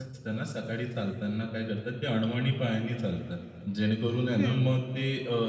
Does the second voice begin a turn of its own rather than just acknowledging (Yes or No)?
No